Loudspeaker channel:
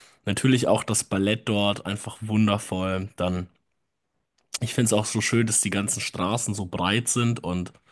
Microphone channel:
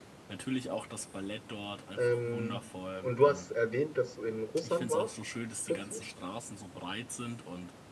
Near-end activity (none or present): present